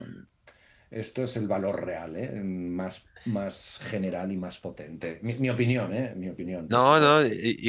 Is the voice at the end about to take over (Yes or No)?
Yes